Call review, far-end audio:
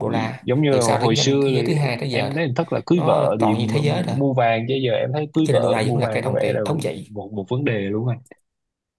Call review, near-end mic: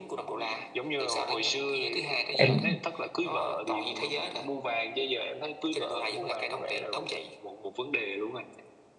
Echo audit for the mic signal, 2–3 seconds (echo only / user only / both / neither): both